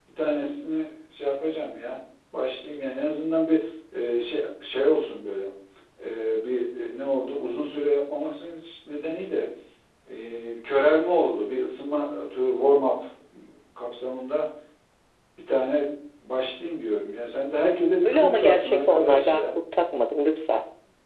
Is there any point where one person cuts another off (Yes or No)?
Yes